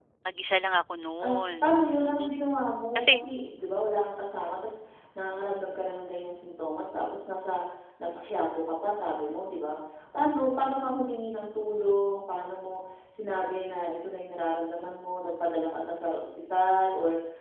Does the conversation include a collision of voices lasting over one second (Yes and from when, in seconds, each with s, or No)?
No